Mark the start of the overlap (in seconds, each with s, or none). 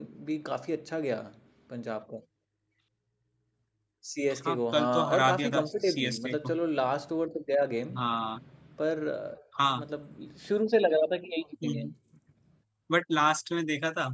4.4 s